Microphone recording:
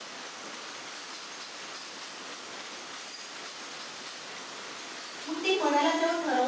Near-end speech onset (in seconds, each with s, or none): 5.3 s